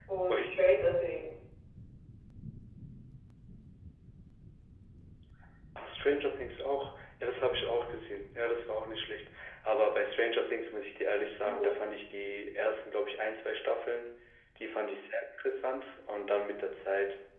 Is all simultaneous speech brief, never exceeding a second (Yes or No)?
Yes